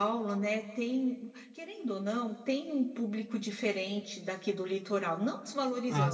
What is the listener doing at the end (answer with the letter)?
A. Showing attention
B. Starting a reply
A